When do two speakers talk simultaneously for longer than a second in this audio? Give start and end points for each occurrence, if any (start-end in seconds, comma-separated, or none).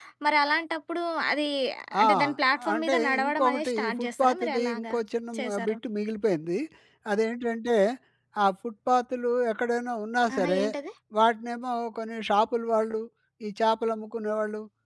2.7-4.8